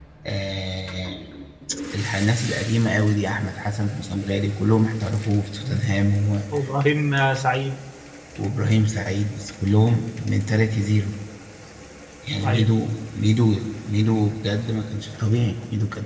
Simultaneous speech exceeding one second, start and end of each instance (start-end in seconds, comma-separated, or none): none